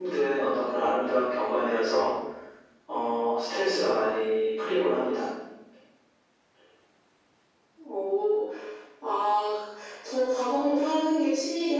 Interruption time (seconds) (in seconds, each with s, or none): none